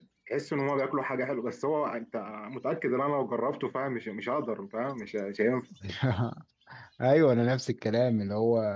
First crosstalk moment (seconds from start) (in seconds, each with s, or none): none